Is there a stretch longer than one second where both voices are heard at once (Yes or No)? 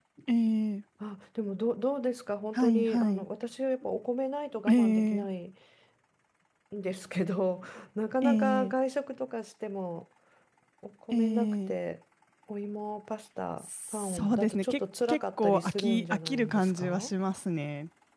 Yes